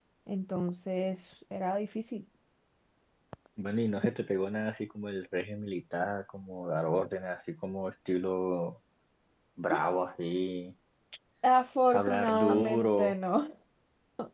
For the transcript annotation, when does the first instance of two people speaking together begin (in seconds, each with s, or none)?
11.9 s